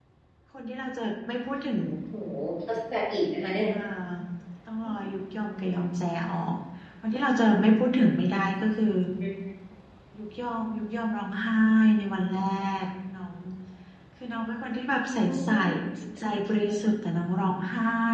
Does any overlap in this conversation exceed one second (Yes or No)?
No